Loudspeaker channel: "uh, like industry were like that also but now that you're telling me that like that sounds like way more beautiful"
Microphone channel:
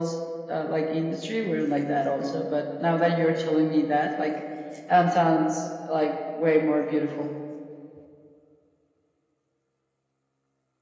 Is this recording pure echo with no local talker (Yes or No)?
Yes